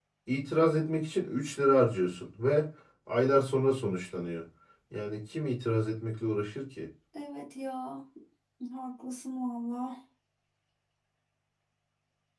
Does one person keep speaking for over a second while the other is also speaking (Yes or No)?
No